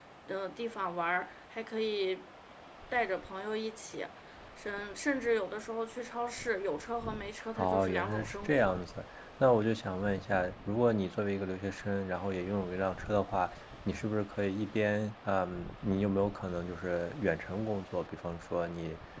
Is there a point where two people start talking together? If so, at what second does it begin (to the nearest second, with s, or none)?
8 s